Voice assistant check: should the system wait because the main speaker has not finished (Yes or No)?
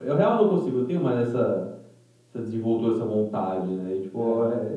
Yes